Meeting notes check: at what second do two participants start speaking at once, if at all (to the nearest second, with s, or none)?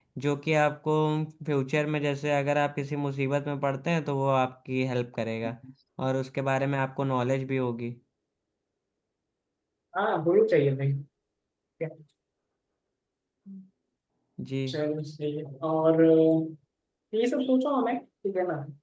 none